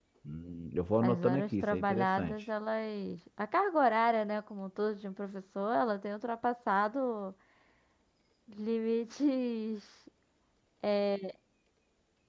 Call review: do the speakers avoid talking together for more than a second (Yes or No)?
No